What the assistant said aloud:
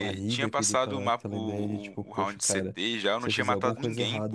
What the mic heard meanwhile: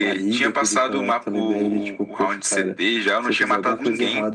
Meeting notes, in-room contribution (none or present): none